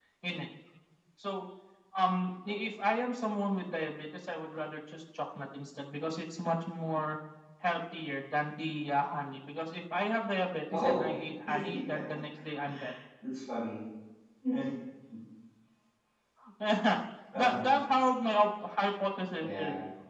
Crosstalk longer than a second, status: none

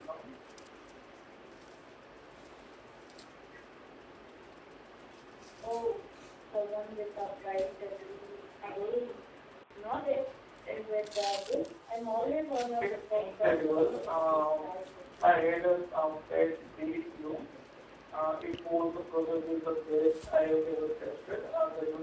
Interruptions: present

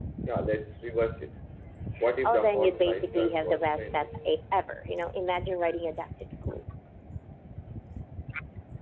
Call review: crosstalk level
present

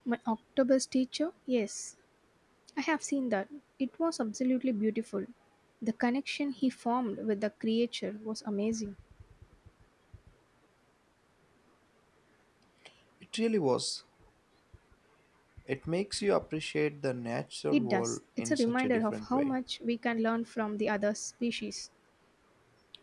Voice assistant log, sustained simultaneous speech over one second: present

